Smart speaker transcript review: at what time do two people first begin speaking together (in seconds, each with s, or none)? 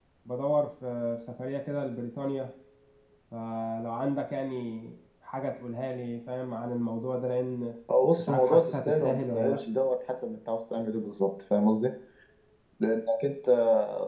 8.2 s